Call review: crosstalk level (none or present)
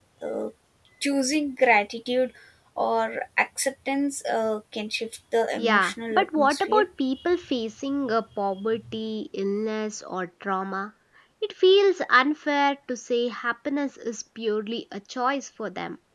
present